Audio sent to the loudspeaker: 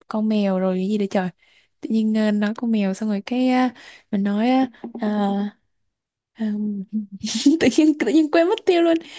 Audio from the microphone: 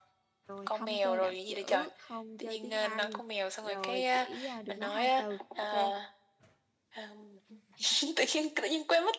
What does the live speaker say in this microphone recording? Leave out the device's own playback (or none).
Rồi không chơi đảo chữ, không chơi tiếng Anh, rồi chỉ ờ, được nói hai từ. Ok.